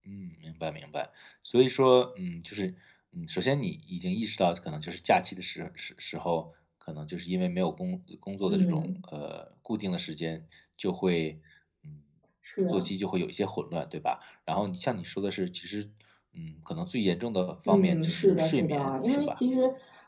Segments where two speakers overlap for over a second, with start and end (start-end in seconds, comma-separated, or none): 17.7-19.4